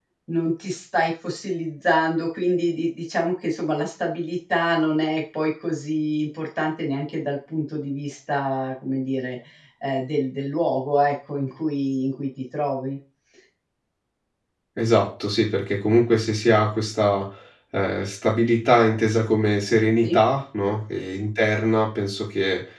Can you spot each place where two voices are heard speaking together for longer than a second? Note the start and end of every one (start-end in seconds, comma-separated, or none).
none